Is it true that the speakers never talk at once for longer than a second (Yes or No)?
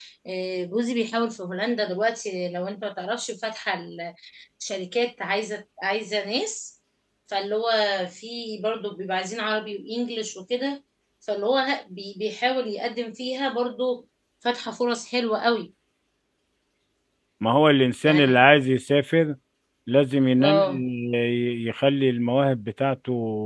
Yes